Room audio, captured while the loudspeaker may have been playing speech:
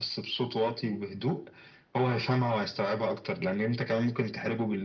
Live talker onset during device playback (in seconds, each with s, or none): none